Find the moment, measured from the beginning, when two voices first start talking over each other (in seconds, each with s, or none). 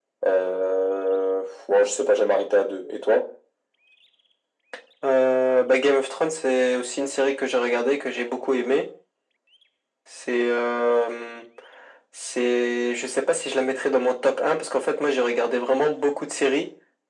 none